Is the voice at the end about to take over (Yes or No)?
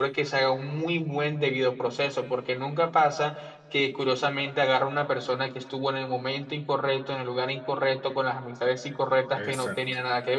No